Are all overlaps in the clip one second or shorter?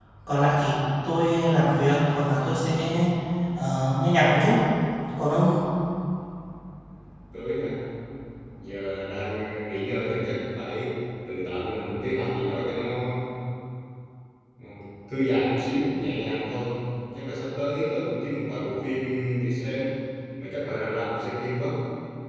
Yes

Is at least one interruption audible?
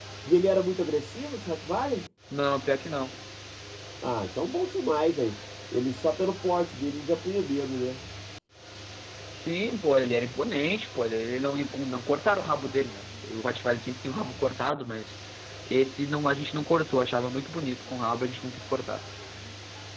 No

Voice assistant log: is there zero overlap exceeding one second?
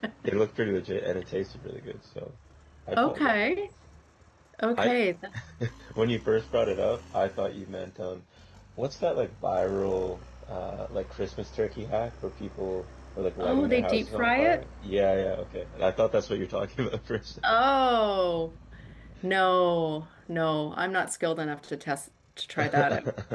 No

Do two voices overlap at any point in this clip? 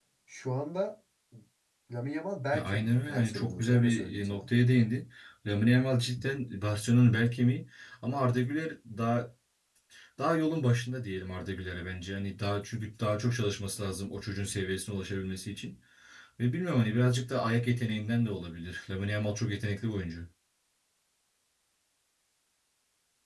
Yes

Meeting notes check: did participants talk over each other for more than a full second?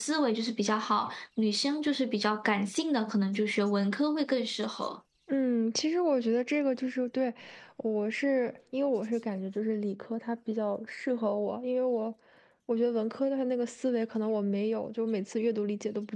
No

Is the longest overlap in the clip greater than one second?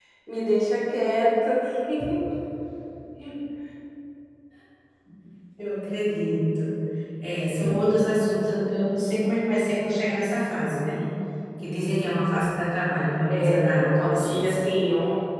Yes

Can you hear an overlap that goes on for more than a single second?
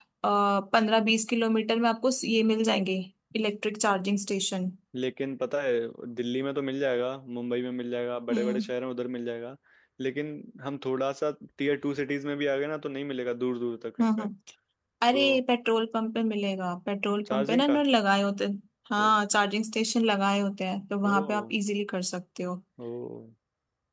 No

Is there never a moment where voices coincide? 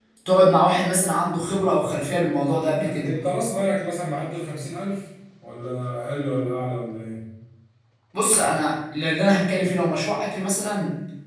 Yes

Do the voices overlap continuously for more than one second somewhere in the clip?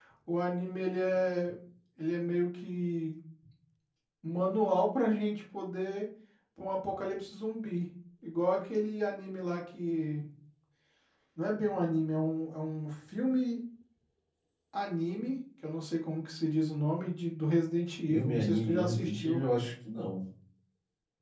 Yes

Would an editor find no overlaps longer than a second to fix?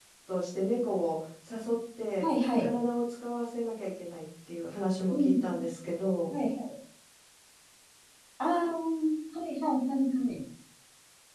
Yes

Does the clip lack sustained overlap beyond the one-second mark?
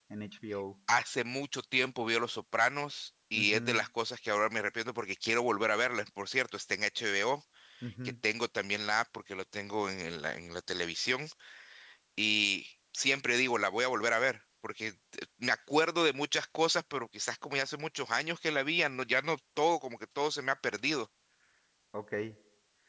Yes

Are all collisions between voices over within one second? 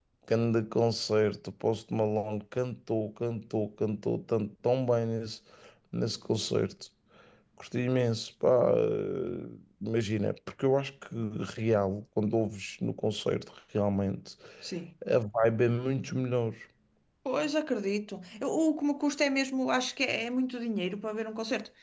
Yes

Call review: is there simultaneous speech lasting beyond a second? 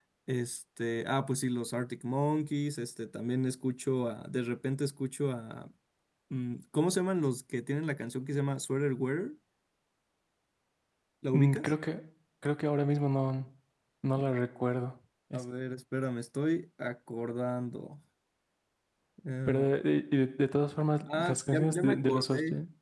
Yes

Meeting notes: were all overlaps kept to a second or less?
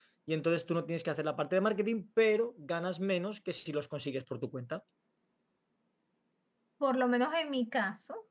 Yes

